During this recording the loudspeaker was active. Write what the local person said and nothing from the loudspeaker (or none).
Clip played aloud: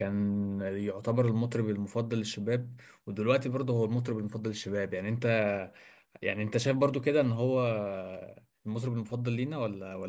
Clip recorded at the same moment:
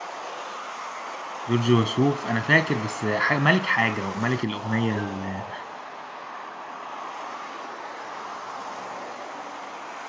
جورج وسوف انا فاكر بس حاجة ملك حاجه وملك الاغنيه ال-